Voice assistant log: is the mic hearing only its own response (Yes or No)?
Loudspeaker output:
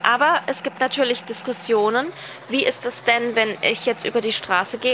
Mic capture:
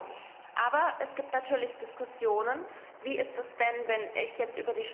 Yes